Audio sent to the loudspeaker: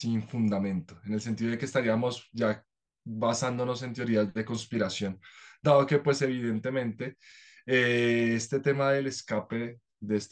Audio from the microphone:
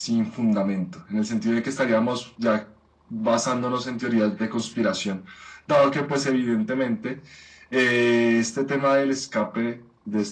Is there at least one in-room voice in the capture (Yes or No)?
No